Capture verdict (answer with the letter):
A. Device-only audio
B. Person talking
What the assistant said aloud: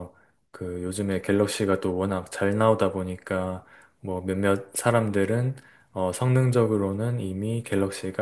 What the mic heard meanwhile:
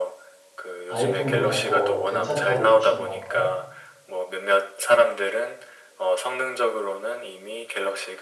B